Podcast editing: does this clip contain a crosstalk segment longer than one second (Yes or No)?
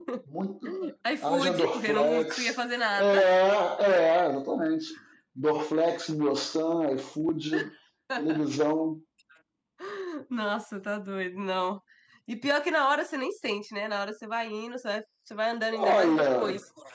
Yes